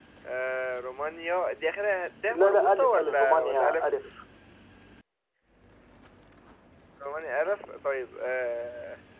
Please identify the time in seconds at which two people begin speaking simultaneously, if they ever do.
2 s

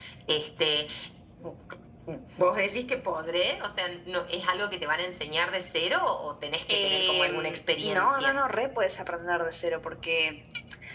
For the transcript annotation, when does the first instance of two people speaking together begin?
7 s

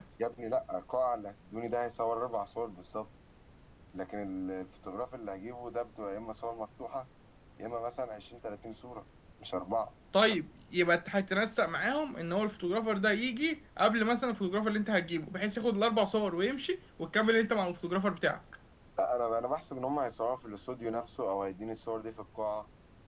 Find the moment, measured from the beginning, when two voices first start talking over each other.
none

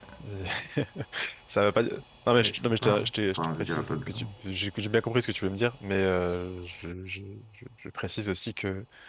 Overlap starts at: 2 s

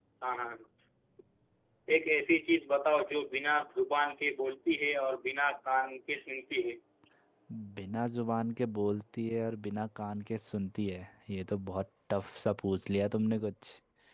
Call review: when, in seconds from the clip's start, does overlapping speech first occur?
none

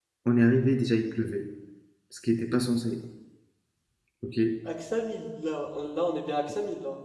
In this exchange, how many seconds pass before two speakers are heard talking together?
none

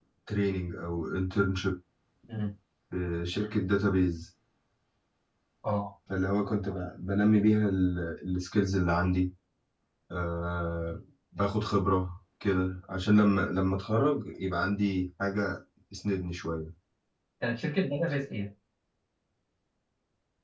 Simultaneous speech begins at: none

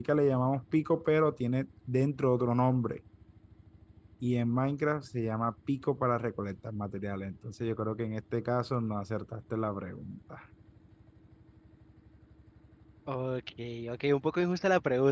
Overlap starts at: none

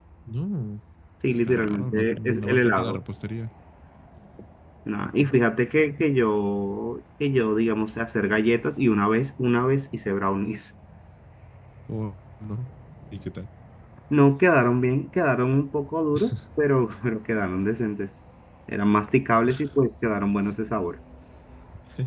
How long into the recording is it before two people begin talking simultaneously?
1 s

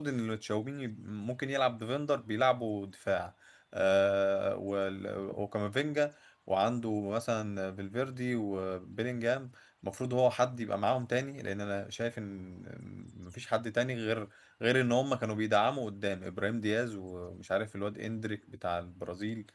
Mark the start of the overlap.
none

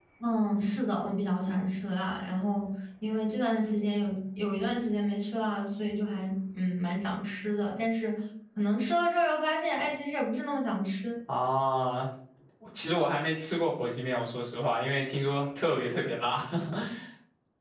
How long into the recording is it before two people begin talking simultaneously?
none

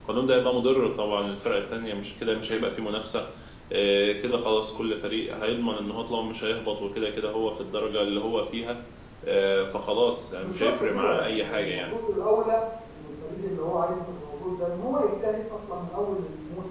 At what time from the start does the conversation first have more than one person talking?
10 s

